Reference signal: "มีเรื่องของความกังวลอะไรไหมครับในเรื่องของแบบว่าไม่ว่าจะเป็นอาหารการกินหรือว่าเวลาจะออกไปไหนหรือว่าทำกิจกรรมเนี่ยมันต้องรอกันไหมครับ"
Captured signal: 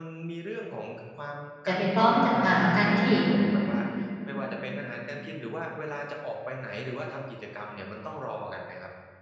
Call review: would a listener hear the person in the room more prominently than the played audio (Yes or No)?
Yes